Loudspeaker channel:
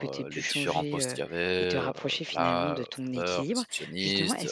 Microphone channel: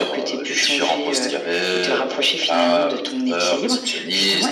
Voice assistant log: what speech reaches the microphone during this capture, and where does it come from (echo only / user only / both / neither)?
echo only